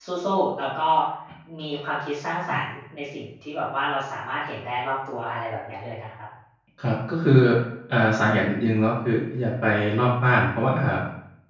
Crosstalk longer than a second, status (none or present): none